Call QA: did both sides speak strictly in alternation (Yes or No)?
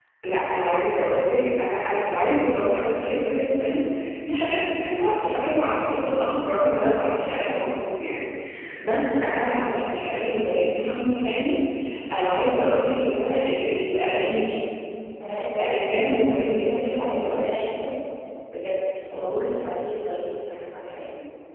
No